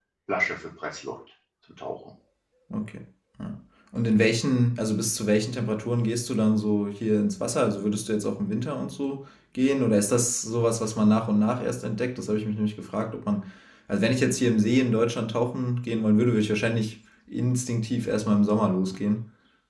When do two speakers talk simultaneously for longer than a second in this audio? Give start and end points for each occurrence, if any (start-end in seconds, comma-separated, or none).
none